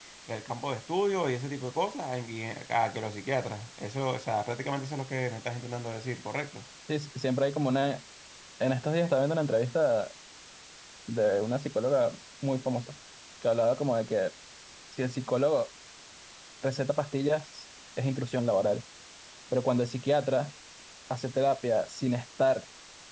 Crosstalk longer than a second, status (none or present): none